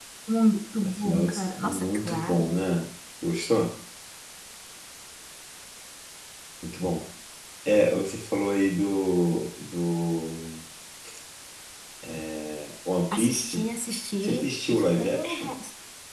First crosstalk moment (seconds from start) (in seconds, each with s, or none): 0.8 s